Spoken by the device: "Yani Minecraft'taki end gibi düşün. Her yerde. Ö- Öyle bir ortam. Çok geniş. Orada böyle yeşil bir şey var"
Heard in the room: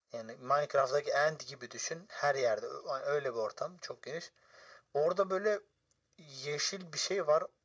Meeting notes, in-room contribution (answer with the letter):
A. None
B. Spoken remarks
A